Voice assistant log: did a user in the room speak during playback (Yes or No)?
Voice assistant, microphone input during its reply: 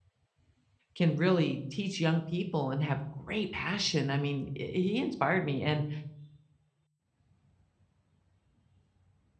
Yes